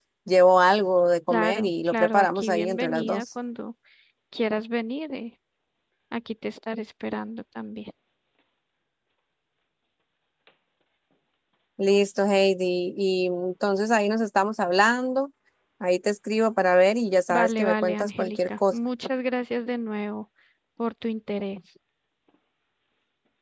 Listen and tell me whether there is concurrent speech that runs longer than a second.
Yes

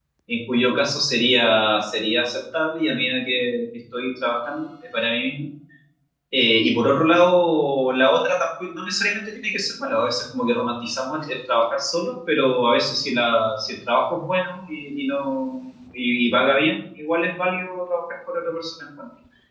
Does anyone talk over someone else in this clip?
No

